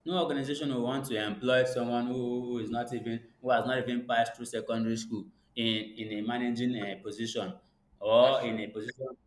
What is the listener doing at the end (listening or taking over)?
listening